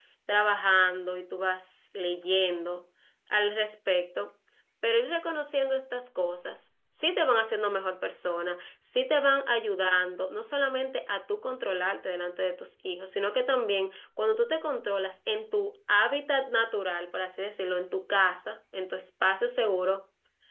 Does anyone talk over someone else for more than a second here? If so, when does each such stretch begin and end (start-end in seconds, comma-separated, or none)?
none